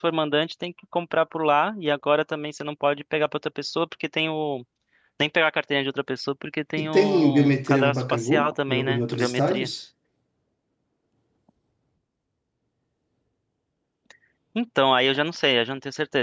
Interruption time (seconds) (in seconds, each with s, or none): 6.8 s